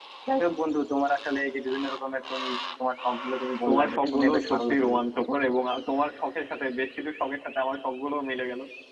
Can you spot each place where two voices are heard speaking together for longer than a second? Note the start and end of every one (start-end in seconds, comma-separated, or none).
3.7-5.2